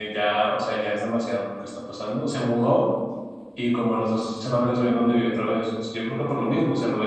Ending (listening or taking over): listening